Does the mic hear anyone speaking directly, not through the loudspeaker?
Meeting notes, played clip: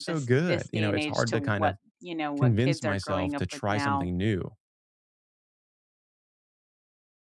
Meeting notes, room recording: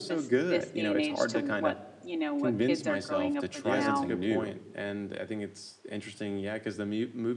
Yes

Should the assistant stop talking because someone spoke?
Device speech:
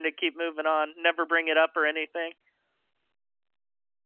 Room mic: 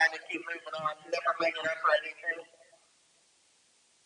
No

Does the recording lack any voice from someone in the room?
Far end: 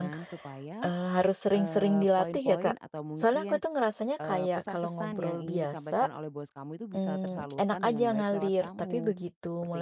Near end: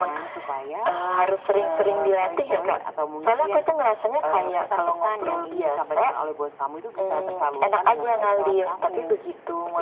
Yes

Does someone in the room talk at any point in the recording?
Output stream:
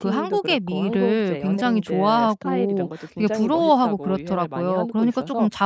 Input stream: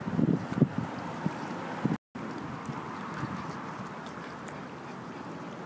No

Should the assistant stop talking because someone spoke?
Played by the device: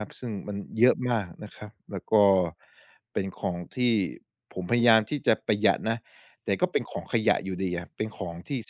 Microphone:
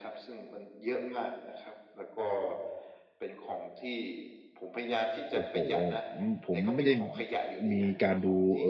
Yes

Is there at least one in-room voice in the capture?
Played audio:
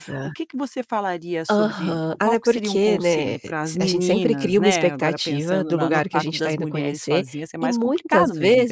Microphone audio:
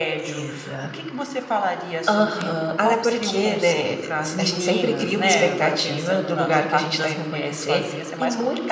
No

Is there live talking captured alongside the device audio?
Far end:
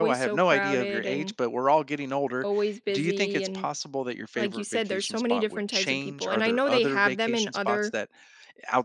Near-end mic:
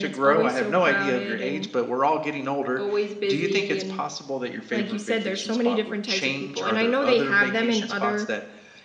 No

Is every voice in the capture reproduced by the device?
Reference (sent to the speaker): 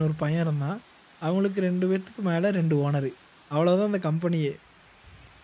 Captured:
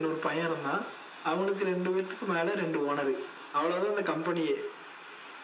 Yes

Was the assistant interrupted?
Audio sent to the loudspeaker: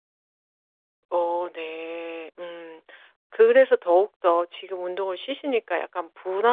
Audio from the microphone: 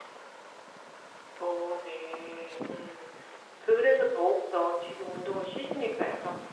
No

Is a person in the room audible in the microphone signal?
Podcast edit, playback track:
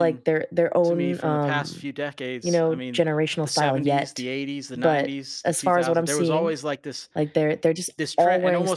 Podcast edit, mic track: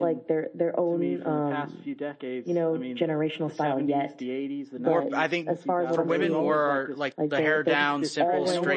Yes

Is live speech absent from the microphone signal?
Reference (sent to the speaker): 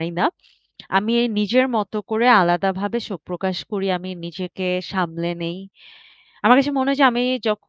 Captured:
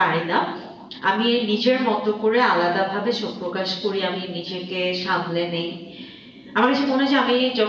Yes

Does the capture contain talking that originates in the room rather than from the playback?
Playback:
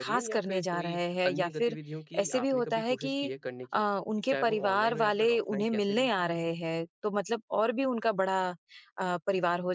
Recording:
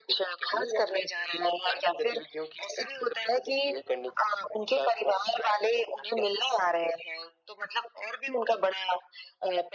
No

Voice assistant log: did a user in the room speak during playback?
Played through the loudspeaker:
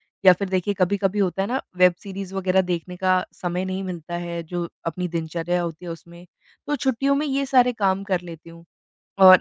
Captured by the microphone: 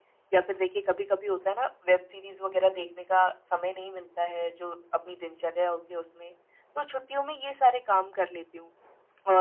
Yes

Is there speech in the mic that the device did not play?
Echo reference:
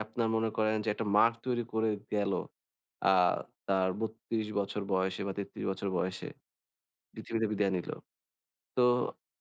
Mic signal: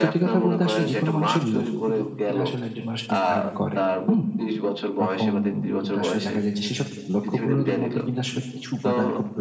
Yes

